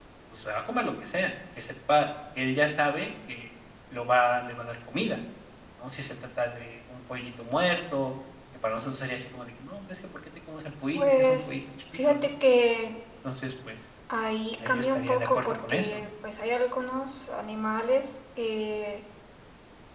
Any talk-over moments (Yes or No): Yes